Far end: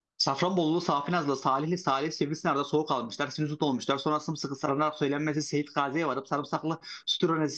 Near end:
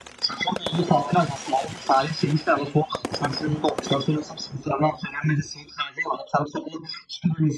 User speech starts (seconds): none

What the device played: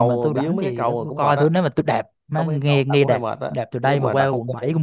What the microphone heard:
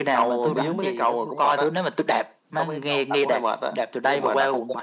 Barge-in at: 0.4 s

